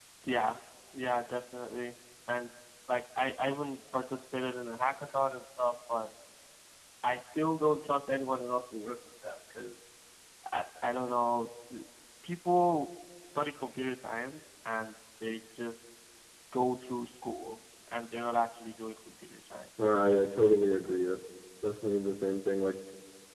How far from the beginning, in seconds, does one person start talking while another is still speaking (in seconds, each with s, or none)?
none